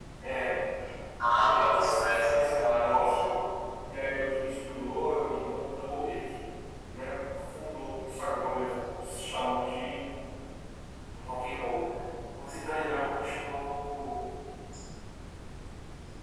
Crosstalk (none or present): present